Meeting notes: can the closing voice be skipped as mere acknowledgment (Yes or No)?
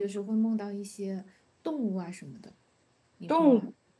No